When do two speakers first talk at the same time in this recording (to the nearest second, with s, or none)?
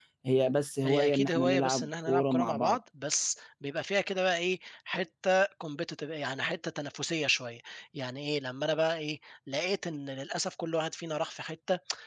1 s